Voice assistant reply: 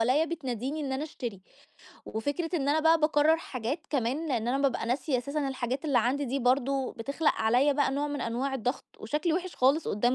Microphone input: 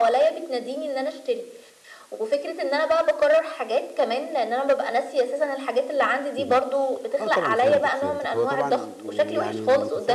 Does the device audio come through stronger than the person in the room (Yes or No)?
Yes